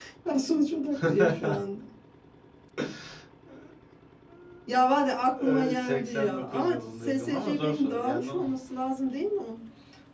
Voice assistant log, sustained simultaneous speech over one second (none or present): present